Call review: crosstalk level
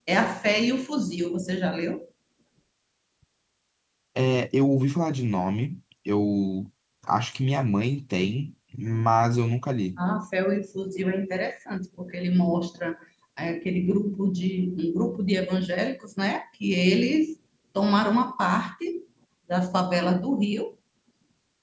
none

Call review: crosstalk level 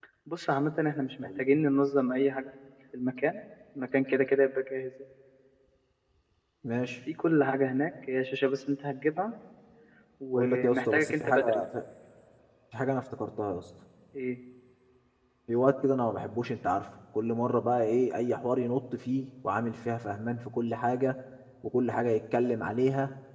present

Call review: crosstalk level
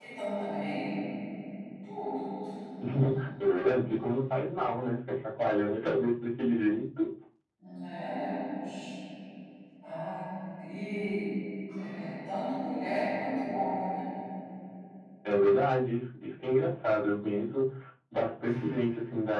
none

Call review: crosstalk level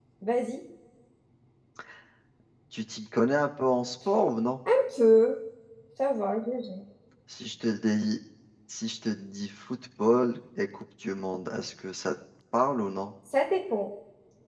none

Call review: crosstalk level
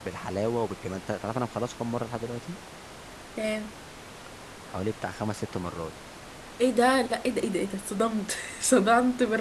none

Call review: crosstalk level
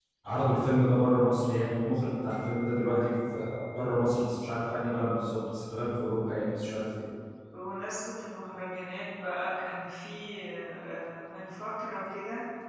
none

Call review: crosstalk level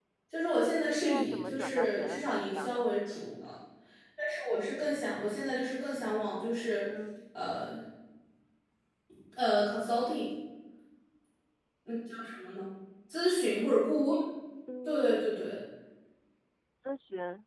present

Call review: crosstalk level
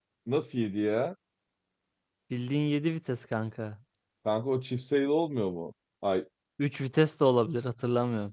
none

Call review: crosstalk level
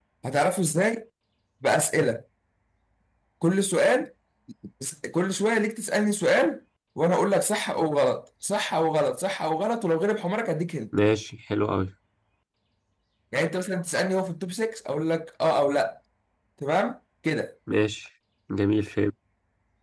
none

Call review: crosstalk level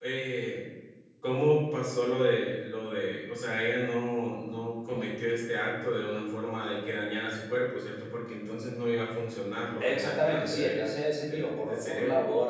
present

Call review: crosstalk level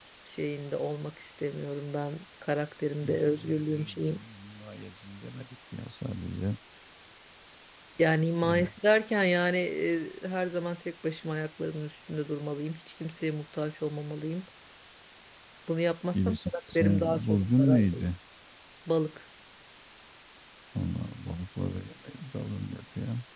present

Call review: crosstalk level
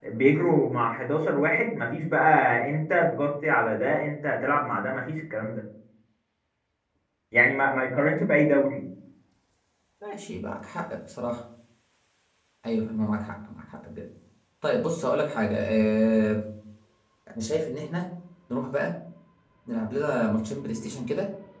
none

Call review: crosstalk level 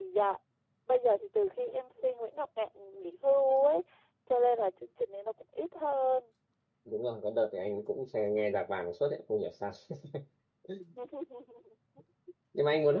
none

